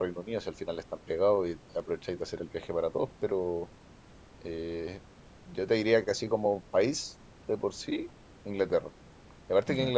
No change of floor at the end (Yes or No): Yes